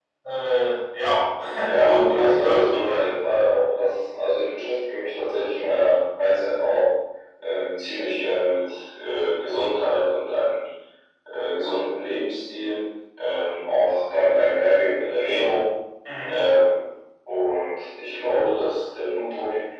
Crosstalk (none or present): present